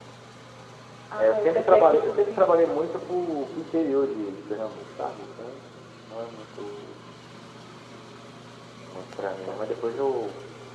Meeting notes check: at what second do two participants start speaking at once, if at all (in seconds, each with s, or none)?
1.2 s